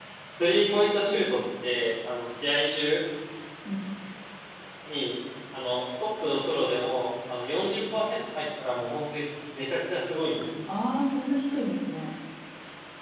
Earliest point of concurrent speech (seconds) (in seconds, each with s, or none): none